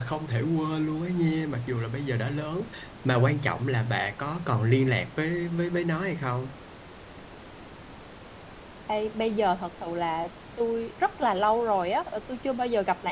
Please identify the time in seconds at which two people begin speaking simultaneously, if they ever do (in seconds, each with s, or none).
none